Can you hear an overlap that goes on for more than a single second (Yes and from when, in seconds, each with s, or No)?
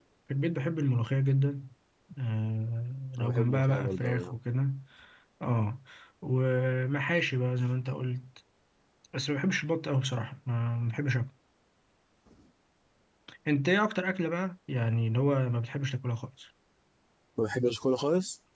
Yes, from 3.2 s